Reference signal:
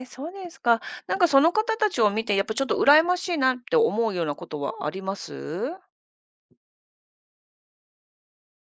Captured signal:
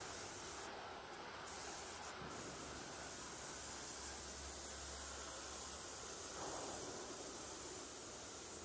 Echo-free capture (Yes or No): Yes